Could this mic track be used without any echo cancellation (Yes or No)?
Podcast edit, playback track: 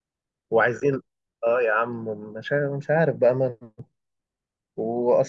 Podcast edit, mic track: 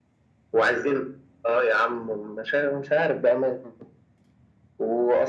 No